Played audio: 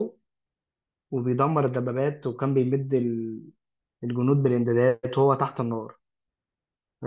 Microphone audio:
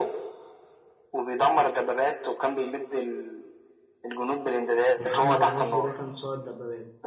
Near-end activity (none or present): present